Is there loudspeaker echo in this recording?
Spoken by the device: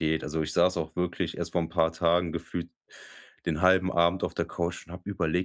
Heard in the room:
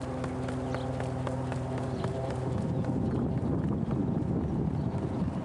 No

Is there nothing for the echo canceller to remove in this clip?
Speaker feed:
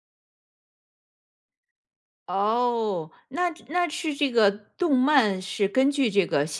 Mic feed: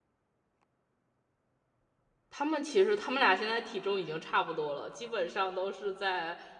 Yes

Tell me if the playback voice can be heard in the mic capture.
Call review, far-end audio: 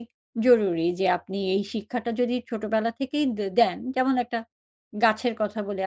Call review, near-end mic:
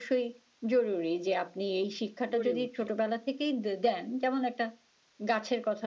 Yes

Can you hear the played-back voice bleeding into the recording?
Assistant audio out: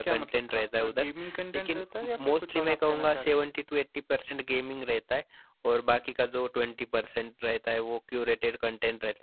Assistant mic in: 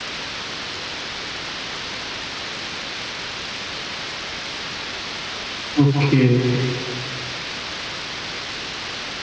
No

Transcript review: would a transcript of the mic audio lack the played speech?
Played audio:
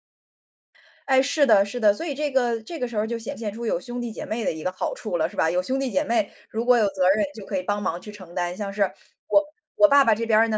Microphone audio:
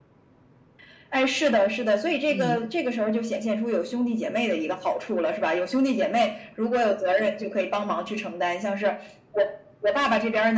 No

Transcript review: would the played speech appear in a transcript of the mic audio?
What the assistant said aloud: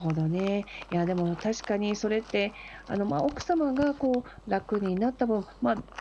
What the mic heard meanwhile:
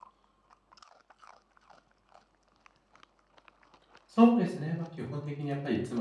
No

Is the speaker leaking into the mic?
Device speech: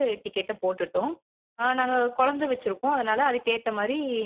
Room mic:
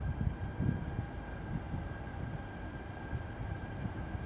No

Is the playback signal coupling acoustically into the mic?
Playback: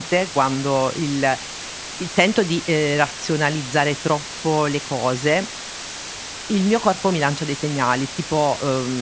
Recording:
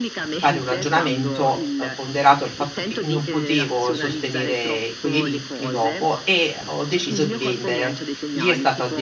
Yes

